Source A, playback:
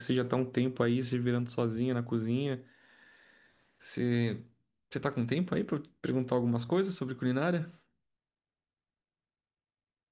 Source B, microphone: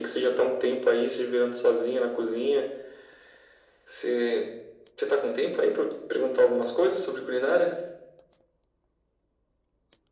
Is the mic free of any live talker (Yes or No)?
Yes